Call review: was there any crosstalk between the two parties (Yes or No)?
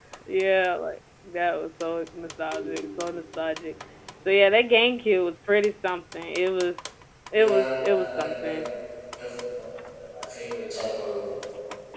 Yes